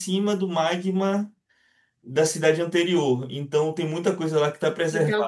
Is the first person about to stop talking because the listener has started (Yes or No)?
Yes